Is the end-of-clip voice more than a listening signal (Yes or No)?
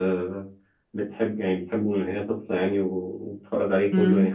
No